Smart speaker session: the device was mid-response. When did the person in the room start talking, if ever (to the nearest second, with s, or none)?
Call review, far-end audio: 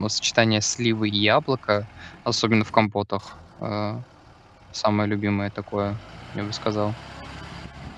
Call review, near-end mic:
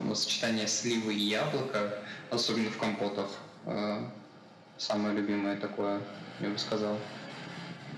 none